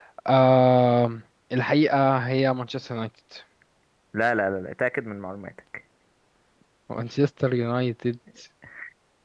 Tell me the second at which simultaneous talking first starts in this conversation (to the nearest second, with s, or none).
none